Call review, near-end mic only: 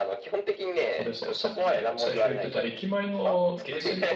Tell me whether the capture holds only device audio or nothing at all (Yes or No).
No